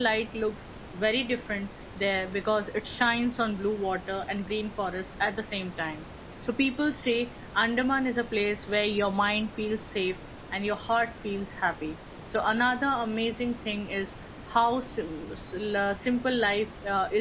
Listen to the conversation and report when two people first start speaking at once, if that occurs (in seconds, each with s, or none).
none